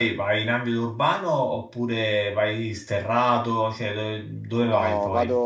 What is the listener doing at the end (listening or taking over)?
taking over